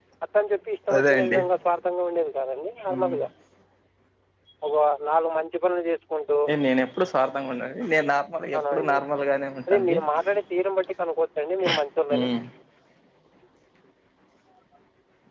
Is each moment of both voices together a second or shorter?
Yes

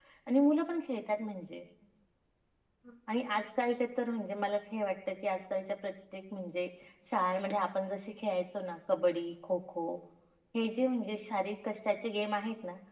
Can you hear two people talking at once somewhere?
No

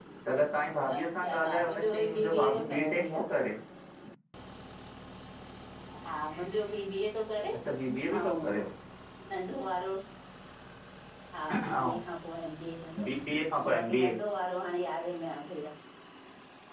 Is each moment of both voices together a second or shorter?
No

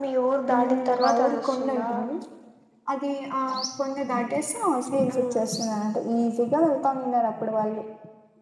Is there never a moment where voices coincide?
No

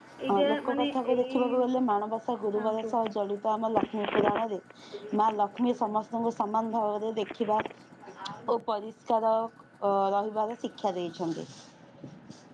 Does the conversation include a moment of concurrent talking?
Yes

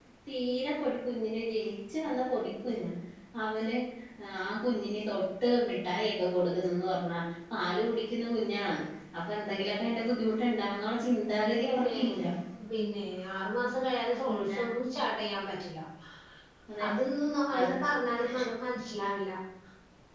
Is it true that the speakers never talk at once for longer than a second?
Yes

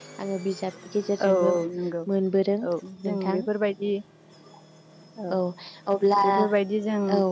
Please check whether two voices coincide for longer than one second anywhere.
No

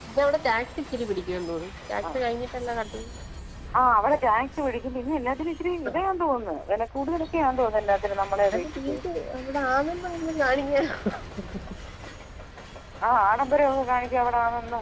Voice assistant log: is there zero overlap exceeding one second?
Yes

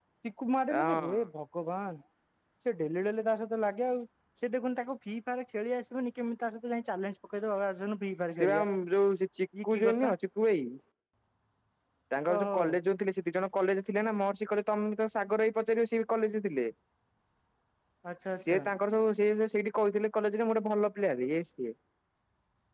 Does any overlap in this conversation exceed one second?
No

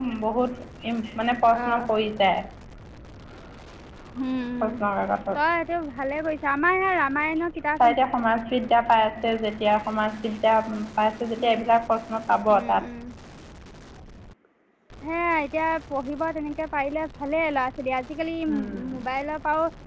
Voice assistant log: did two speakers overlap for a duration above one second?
No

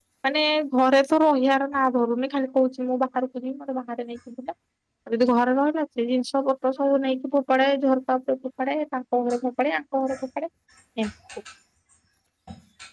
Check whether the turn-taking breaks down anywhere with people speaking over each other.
No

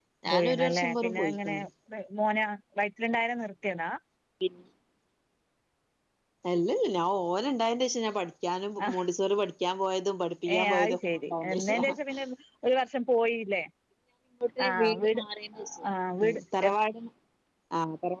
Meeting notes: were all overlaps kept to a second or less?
No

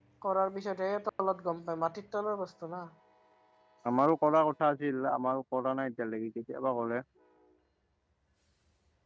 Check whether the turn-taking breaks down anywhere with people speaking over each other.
No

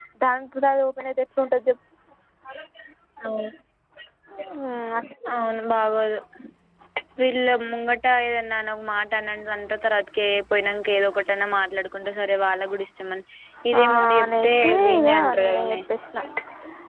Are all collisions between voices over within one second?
No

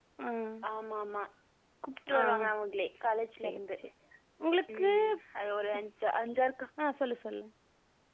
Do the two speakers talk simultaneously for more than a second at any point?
No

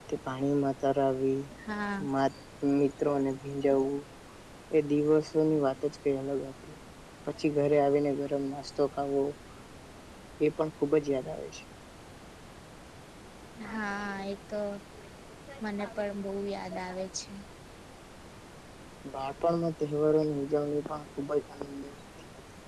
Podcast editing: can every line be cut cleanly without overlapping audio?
Yes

